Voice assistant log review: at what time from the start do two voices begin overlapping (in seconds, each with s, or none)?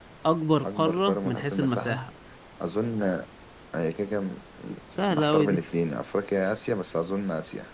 0.6 s